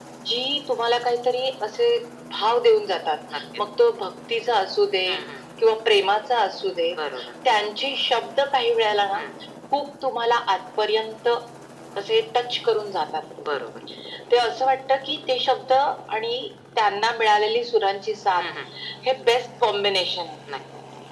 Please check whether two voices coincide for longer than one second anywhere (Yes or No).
No